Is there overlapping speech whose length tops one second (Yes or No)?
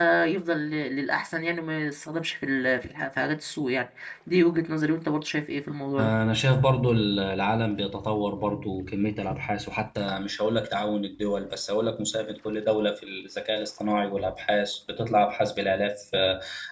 No